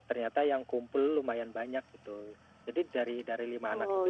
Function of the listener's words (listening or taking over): listening